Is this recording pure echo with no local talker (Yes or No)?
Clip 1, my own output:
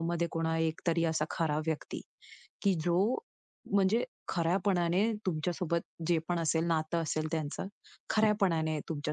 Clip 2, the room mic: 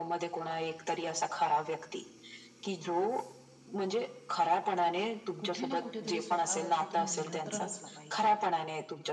No